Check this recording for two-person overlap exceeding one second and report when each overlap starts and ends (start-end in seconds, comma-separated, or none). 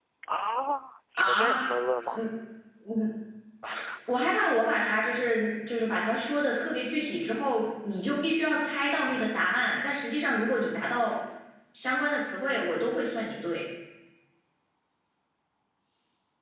none